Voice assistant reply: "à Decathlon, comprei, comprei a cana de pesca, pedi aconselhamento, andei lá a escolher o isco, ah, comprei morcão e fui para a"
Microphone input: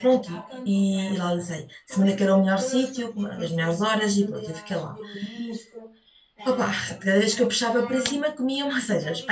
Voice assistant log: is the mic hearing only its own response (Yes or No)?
No